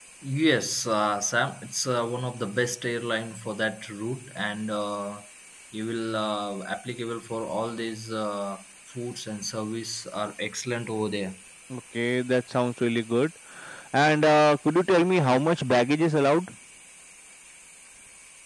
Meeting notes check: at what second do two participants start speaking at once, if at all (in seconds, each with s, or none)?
none